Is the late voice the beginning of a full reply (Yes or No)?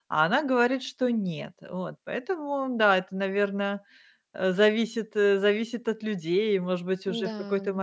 No